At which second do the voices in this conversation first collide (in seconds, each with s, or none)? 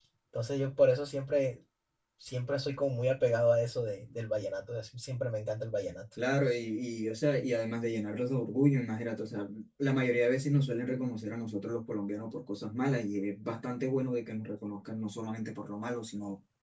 none